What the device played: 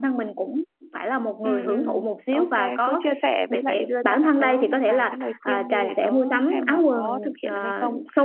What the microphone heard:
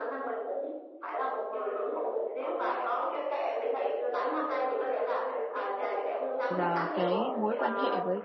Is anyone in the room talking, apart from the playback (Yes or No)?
Yes